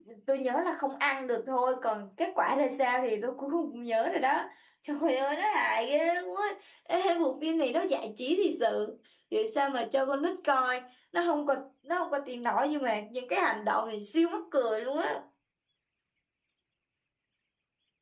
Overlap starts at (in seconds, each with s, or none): none